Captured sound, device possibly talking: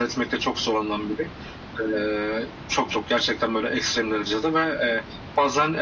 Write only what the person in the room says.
none

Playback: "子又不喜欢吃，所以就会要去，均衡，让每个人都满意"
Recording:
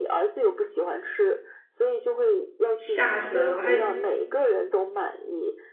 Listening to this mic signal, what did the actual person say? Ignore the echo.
吓死了我还

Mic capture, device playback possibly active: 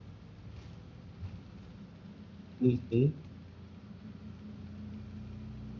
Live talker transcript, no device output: อือฮึ

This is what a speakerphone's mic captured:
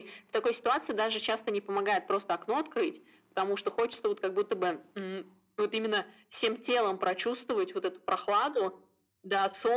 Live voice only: none

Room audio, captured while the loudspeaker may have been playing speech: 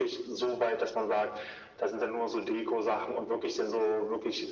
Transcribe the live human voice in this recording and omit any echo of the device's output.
none

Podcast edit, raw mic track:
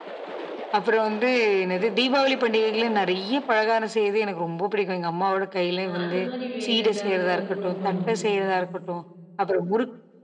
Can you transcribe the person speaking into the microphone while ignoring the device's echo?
அ அந்தமாரி வேற ஏதாவது குடும்பம்?

